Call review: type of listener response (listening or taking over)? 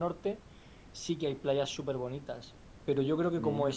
listening